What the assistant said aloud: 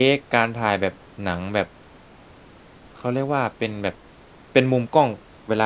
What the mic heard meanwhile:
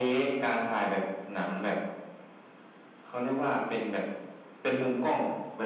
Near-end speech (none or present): none